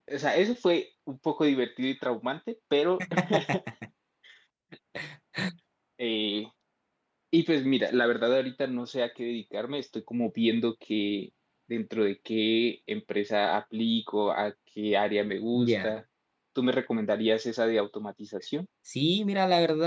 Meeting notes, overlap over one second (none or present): none